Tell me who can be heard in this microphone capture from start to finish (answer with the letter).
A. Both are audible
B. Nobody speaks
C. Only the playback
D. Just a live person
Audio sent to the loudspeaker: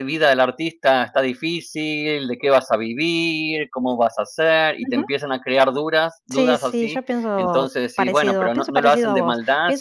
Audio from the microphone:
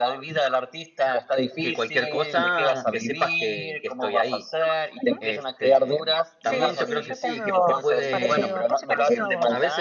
A